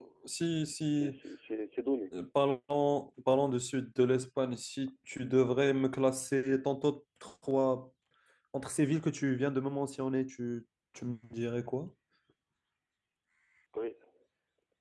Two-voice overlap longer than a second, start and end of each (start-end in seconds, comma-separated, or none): none